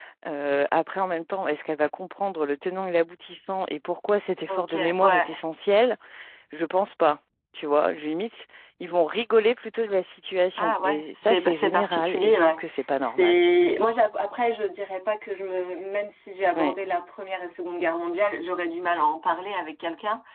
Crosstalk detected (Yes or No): Yes